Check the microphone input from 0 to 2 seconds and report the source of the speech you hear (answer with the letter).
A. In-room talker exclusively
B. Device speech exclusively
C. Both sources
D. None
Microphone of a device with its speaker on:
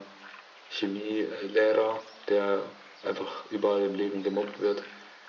B